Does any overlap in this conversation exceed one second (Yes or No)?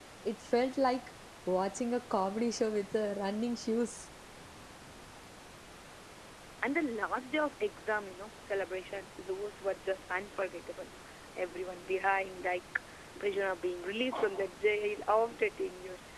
No